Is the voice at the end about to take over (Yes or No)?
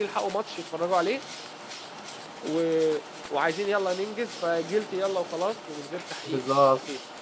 Yes